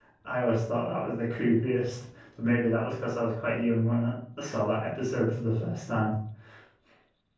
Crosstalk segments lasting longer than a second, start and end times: none

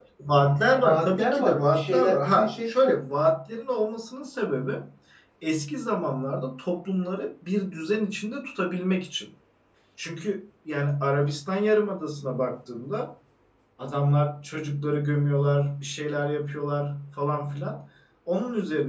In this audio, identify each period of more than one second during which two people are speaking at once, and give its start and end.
0.8-2.7

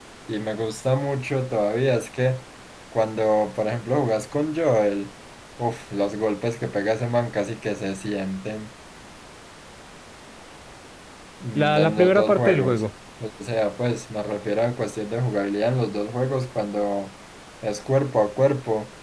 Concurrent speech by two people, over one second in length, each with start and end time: 11.6-12.8

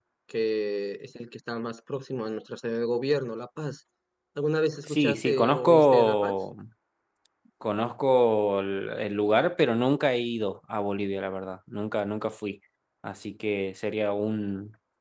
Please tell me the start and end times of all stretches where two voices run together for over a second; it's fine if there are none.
4.9-6.3

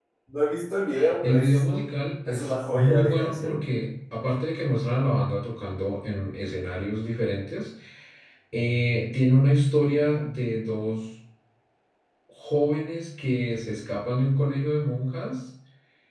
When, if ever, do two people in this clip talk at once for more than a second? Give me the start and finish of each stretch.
1.2-3.6

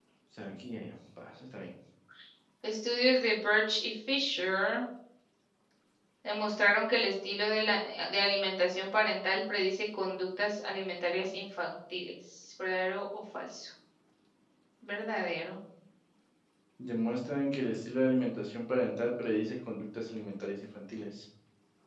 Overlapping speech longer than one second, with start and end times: none

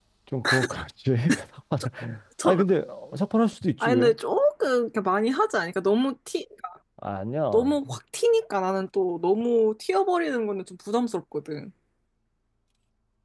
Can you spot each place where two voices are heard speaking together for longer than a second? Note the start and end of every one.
none

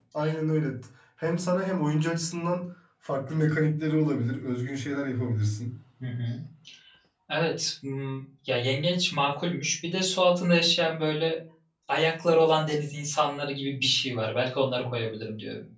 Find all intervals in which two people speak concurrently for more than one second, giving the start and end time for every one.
none

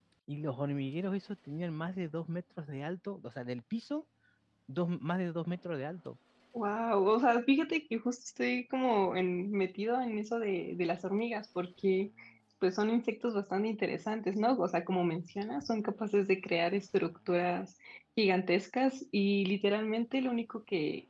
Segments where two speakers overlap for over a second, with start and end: none

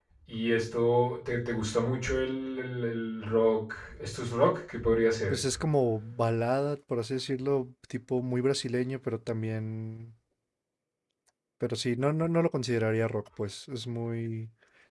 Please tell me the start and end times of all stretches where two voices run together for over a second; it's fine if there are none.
none

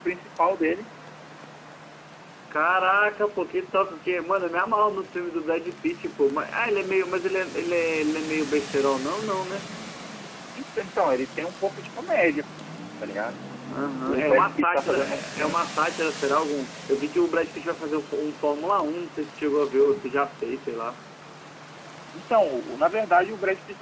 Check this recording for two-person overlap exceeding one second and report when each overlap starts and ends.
14.1-15.6

